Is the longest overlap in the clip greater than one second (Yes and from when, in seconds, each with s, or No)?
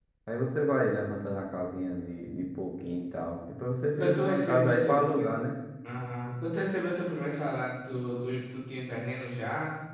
Yes, from 4.0 s